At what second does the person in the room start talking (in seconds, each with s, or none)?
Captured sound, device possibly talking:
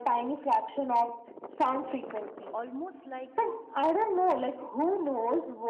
2.5 s